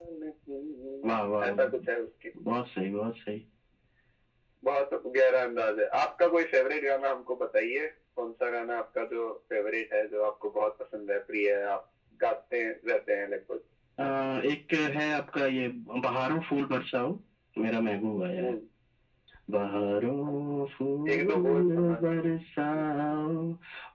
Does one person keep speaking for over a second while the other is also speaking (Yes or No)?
Yes